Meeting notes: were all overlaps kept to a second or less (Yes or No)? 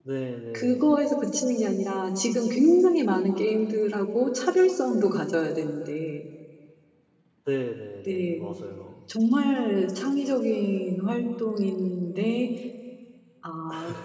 Yes